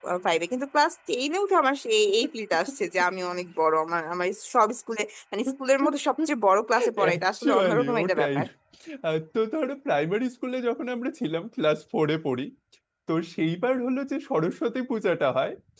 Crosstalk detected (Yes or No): Yes